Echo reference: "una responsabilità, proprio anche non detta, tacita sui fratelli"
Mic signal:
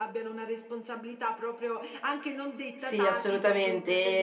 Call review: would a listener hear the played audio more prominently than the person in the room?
No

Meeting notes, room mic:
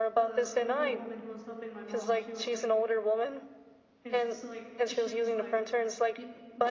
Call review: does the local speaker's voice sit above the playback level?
No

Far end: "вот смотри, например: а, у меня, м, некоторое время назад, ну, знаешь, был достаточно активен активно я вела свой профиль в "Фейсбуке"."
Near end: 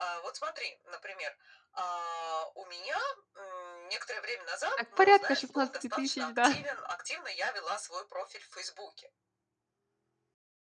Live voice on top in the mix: Yes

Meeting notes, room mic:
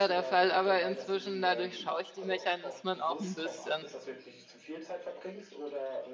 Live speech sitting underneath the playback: No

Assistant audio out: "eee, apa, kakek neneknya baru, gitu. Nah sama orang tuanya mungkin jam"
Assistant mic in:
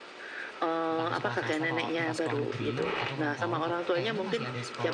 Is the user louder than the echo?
No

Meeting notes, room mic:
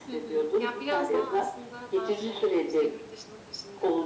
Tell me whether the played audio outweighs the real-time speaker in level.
Yes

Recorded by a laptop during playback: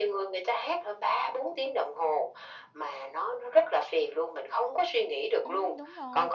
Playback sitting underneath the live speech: No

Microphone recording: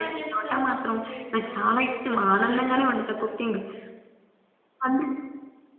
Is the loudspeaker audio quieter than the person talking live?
No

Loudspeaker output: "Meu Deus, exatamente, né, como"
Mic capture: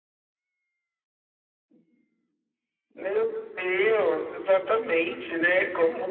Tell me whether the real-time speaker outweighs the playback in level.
No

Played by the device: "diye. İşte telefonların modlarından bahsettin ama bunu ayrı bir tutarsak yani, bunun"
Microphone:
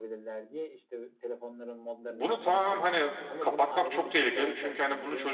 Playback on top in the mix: No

